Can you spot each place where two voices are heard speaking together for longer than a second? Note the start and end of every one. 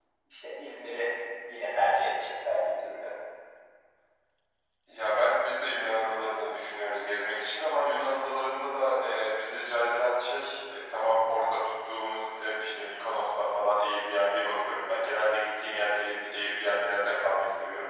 none

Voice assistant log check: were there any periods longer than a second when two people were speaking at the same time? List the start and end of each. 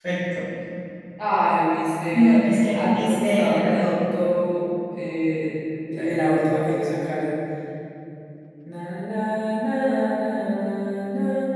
2.1-4.0

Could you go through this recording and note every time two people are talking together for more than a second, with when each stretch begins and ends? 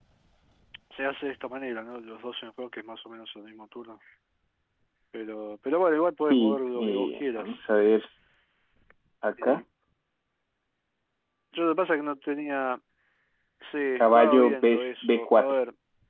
6.2-7.7, 14.0-15.6

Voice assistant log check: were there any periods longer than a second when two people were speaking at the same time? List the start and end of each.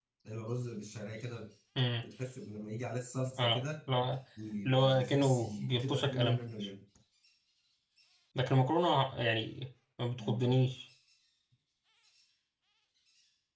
4.7-6.4

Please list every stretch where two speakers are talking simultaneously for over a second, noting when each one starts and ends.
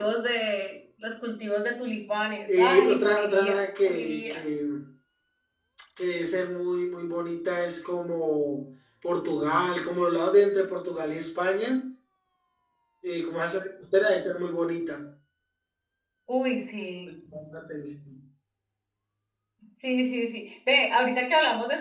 2.6-4.4

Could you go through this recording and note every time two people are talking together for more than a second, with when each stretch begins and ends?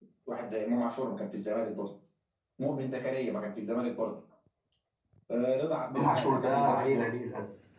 5.9-7.1

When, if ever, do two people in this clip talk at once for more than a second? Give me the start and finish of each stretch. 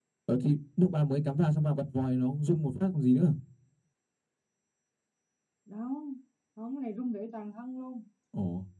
none

